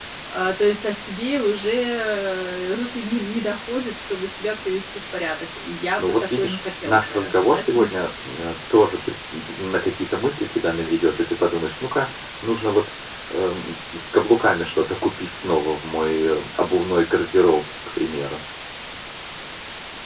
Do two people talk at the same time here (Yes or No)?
Yes